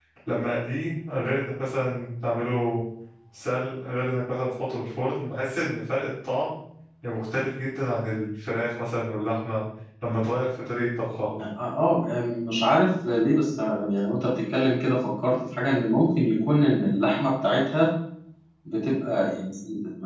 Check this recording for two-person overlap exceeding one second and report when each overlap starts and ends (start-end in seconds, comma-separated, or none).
none